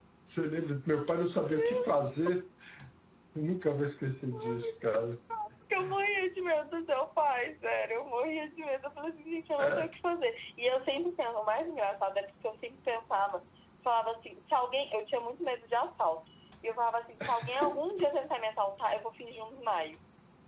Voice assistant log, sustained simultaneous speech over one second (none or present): none